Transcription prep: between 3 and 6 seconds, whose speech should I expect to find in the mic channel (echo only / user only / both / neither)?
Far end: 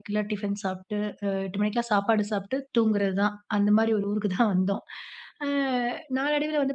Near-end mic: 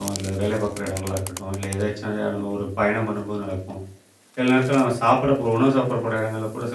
user only